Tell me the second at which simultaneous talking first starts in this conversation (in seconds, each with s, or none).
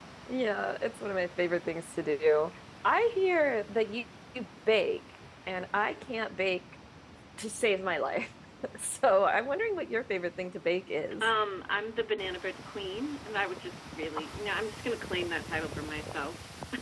none